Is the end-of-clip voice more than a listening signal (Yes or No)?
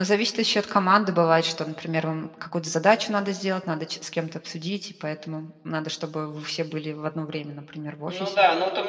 Yes